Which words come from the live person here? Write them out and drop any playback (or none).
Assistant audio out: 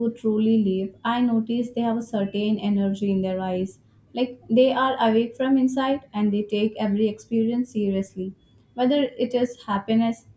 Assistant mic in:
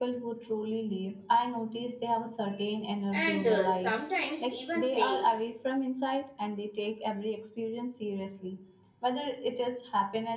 and uh, sometimes even pain.